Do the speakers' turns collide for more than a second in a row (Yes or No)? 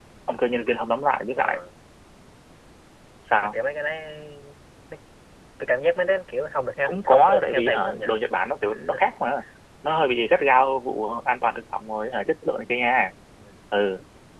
Yes